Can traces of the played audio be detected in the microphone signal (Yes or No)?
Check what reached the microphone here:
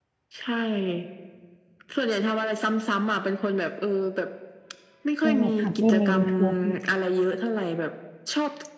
Yes